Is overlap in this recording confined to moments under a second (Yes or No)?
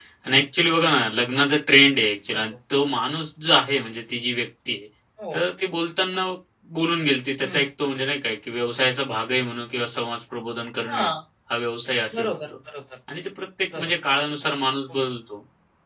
Yes